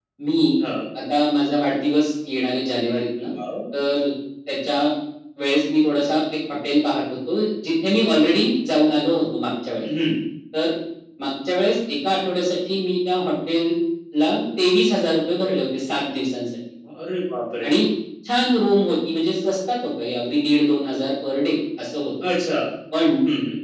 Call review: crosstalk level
none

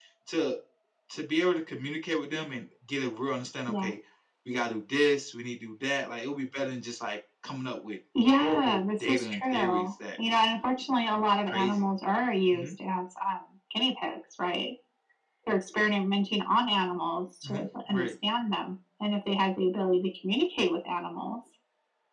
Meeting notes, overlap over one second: present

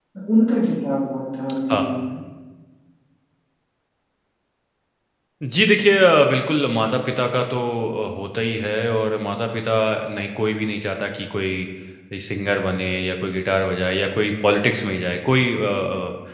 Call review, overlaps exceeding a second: none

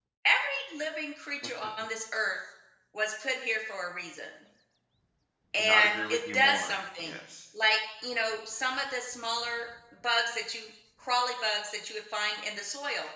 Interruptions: present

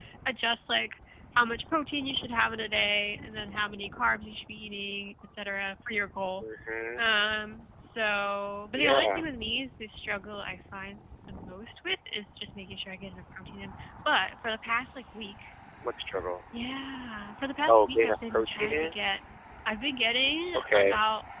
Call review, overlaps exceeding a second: present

